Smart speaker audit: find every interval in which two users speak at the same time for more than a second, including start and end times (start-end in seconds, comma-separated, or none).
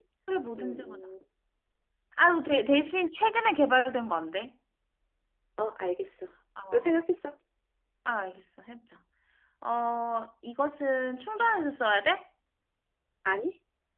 none